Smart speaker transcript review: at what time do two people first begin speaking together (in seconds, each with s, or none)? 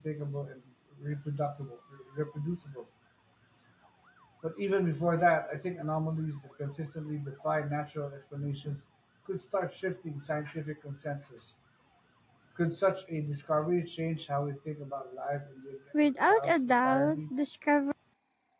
15.9 s